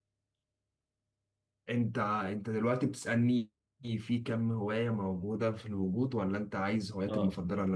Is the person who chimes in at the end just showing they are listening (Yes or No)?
No